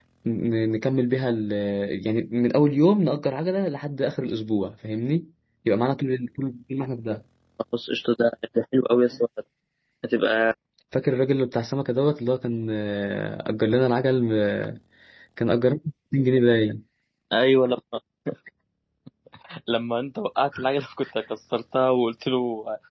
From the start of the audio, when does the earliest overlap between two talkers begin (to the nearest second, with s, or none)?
none